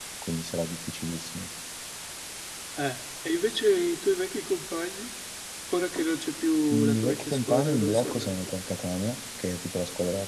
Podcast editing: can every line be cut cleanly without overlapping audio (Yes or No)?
No